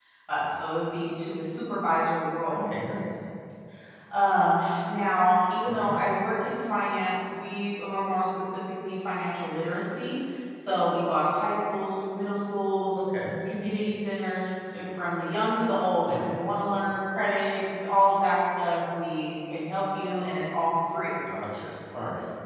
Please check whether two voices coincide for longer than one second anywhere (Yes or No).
No